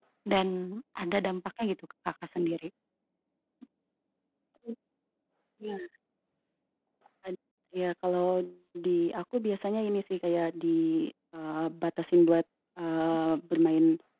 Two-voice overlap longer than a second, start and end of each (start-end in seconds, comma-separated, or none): none